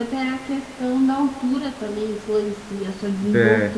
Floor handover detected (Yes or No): Yes